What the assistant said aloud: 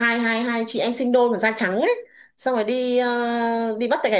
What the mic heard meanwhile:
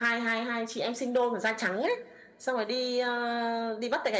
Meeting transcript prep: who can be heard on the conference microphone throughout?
echo only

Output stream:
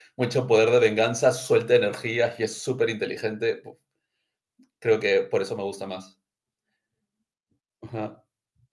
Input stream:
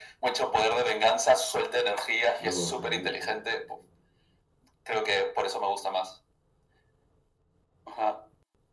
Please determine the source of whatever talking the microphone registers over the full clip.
both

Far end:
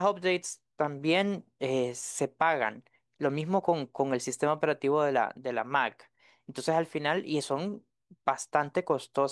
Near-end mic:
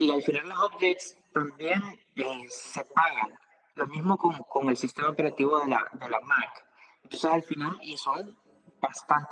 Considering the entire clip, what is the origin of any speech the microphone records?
echo only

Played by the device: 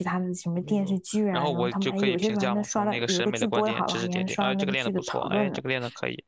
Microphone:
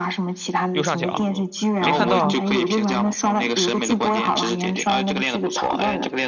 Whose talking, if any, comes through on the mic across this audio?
both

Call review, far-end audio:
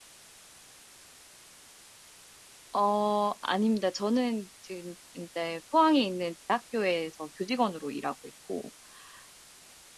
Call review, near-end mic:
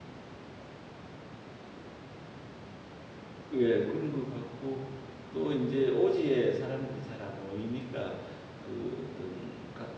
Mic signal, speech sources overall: user only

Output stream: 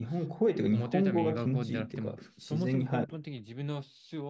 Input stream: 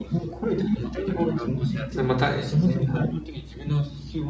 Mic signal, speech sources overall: both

